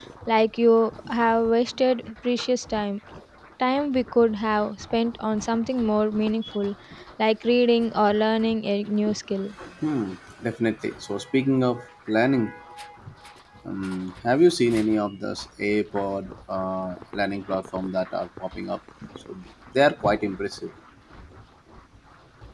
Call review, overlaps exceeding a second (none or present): none